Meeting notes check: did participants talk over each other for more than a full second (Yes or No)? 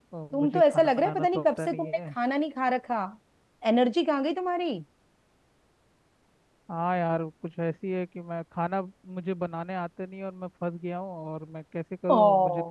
Yes